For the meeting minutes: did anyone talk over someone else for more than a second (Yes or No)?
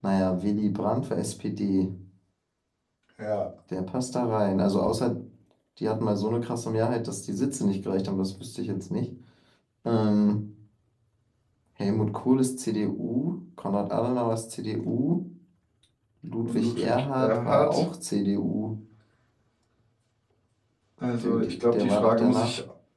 Yes